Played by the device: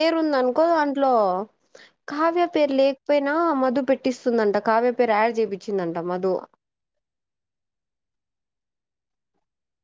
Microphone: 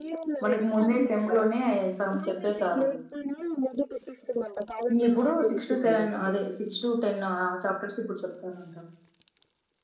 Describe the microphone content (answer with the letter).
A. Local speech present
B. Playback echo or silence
A